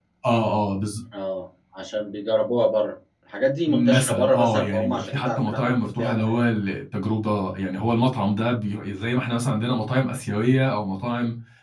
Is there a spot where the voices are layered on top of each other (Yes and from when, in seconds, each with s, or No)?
Yes, from 3.7 s